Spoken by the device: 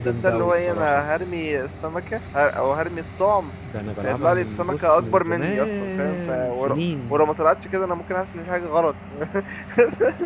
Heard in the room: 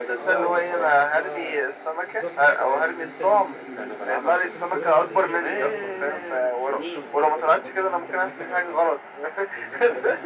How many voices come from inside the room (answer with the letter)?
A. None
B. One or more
B